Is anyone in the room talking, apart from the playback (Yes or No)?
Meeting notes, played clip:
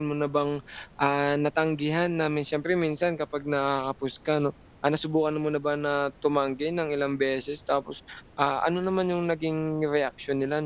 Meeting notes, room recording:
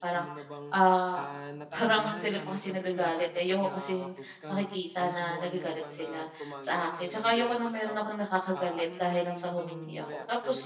Yes